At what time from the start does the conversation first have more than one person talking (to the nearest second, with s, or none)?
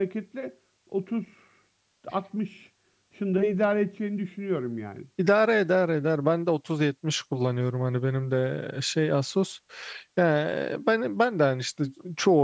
none